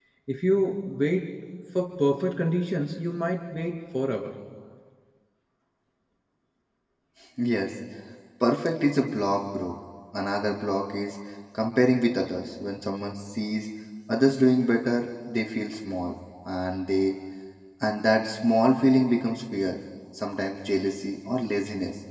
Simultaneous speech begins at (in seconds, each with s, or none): none